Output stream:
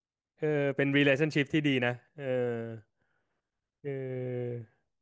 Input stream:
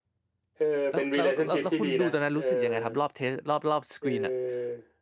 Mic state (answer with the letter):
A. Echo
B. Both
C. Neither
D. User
B